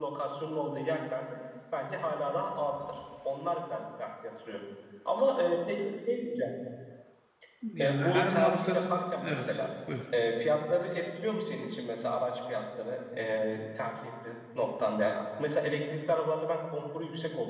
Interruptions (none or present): present